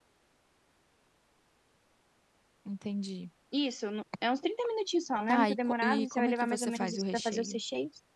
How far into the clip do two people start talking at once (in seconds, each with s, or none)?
5.3 s